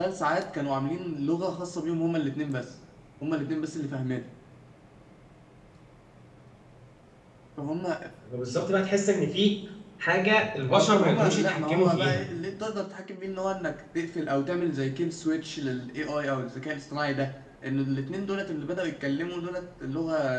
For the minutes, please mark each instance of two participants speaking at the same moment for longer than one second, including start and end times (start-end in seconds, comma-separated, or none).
10.7-12.2